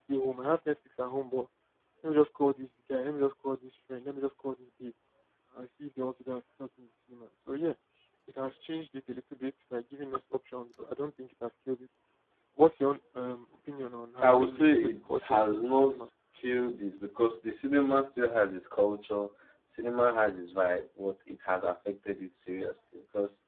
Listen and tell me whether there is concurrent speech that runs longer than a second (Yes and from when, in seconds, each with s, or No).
Yes, from 14.2 s